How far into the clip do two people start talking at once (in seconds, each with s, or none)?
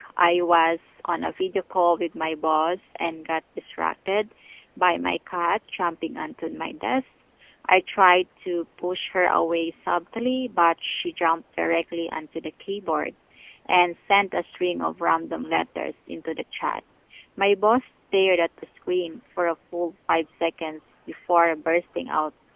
none